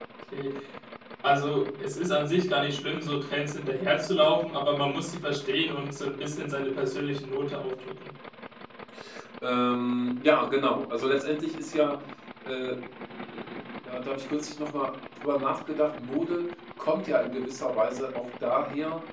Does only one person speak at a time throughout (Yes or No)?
Yes